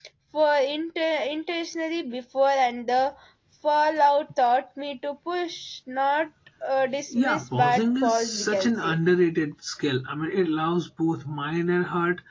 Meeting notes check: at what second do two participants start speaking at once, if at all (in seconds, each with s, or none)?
7.1 s